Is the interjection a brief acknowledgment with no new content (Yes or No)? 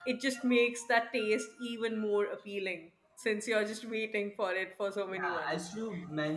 No